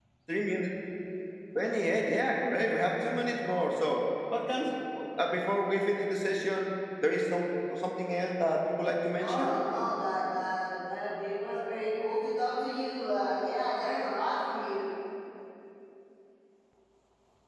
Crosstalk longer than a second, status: none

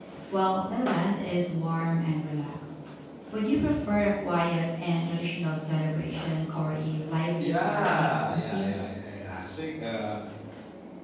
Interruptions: present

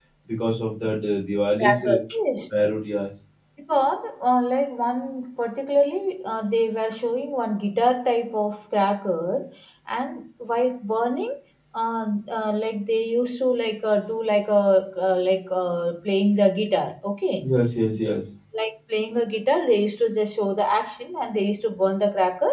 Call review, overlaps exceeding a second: none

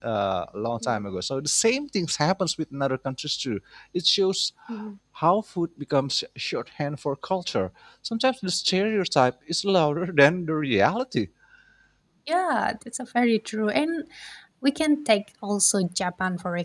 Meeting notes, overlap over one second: none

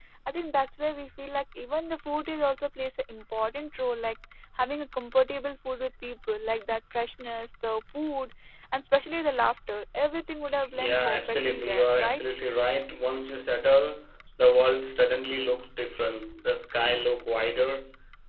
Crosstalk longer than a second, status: present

